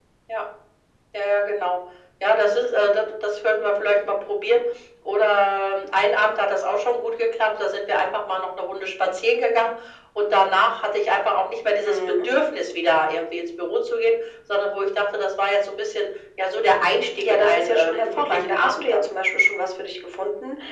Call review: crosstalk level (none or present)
present